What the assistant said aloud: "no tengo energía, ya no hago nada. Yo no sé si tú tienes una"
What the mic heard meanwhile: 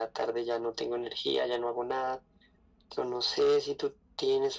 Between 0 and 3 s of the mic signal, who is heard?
echo only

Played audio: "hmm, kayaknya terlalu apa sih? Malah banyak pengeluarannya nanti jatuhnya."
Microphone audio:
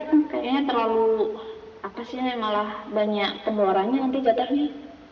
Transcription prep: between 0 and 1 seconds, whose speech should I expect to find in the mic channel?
echo only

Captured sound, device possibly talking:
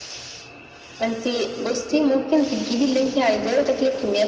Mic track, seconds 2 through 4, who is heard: echo only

